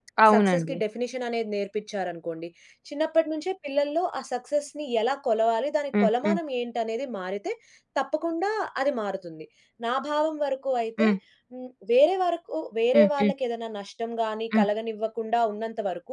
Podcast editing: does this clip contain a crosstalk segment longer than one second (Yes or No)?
No